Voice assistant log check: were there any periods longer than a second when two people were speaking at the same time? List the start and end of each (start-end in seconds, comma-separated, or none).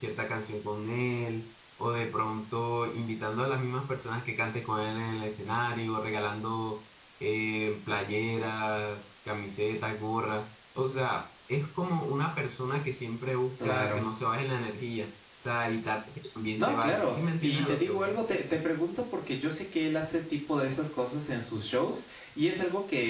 16.6-18.2